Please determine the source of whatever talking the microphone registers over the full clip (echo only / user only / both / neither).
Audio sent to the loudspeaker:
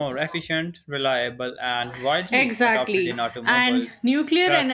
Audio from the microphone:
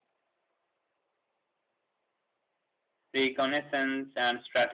user only